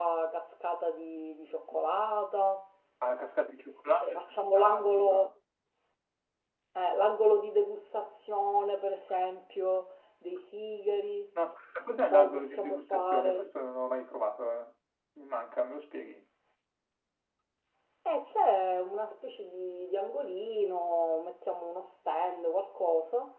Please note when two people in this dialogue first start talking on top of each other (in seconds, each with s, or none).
4.0 s